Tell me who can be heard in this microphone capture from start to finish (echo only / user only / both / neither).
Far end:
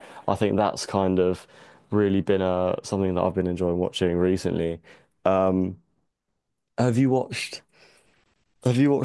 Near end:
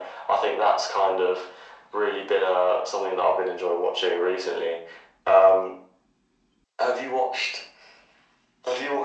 echo only